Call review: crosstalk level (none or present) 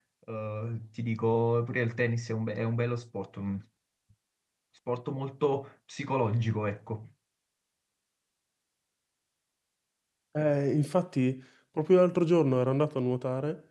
none